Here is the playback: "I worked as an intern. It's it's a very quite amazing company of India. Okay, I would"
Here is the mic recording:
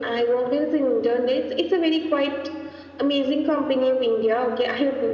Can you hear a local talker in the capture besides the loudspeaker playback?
No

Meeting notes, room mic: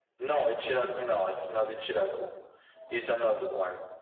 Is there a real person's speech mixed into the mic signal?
No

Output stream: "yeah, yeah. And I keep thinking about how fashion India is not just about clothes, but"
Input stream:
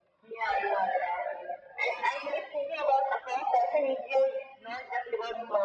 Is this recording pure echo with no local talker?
Yes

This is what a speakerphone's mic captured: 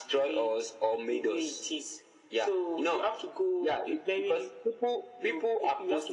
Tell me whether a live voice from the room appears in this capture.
No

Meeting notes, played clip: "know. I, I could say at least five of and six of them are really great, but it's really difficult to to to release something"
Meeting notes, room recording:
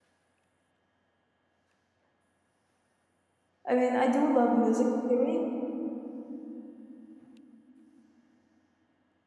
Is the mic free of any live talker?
No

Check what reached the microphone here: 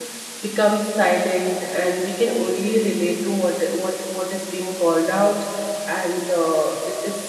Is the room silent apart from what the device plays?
No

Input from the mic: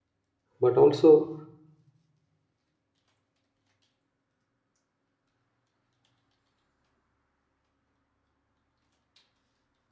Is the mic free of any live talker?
No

